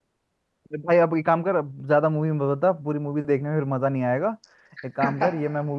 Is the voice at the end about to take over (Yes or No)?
No